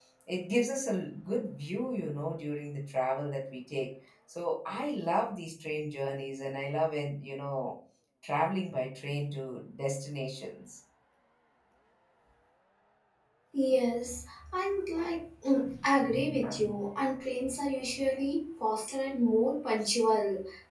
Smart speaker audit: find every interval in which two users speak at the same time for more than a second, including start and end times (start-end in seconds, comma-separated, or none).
none